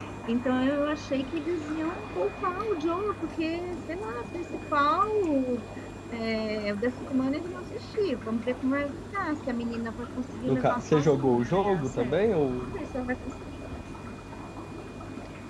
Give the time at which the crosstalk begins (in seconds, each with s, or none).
10.4 s